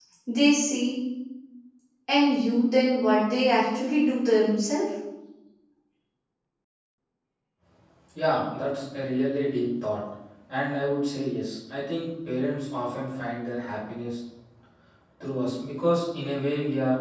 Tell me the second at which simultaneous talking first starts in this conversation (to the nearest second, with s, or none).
none